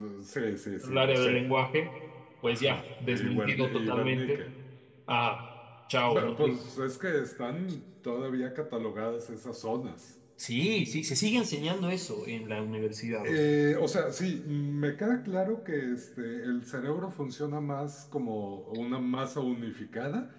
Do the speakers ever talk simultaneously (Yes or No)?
Yes